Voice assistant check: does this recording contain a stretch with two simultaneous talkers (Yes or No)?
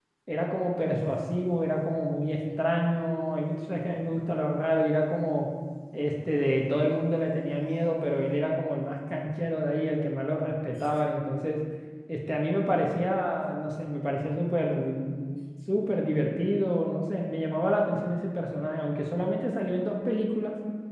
No